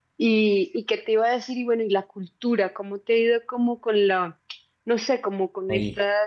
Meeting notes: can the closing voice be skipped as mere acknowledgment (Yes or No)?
Yes